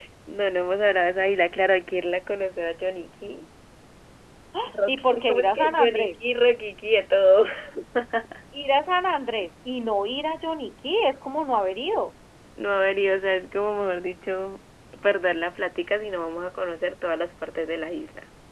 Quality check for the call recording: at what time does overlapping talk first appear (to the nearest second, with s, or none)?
5 s